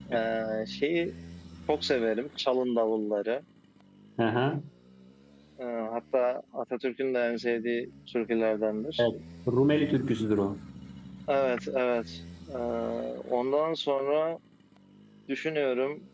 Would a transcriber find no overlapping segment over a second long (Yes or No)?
Yes